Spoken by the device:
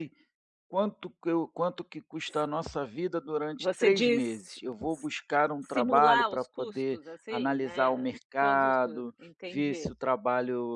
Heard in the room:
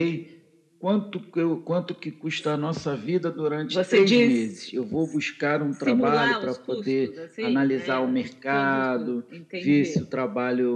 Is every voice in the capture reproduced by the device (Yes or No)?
Yes